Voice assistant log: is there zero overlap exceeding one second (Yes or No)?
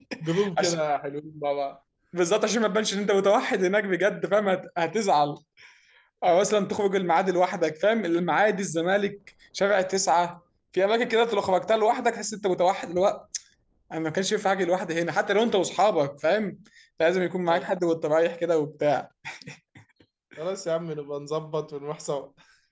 Yes